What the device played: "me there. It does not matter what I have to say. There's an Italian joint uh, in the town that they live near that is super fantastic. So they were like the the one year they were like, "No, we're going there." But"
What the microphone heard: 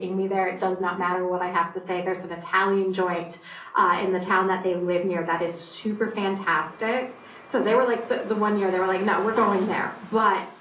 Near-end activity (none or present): present